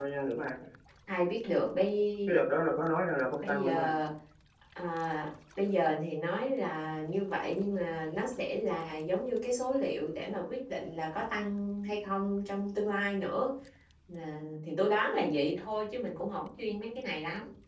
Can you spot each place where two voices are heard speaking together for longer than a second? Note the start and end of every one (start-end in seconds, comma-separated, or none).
none